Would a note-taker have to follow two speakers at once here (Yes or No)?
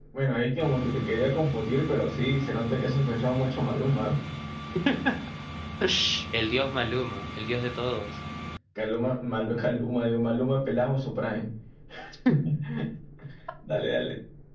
No